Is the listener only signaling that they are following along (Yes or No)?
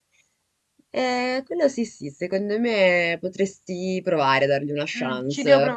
No